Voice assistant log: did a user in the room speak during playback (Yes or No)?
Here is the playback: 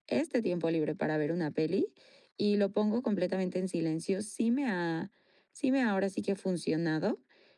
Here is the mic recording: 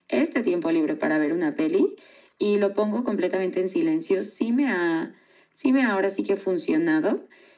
No